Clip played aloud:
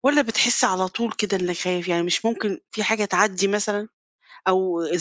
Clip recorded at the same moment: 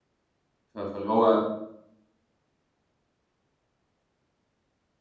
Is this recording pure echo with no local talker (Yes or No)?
No